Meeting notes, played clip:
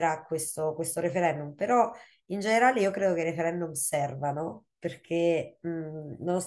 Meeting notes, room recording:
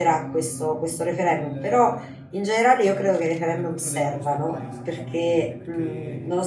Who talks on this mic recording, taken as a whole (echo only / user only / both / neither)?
both